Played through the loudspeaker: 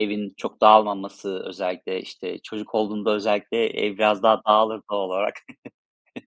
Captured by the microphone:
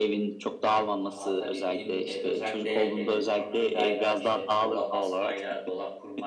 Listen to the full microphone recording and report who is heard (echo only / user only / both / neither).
both